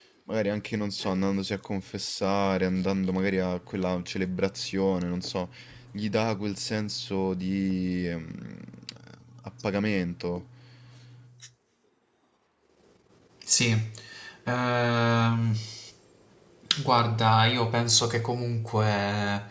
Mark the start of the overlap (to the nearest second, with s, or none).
none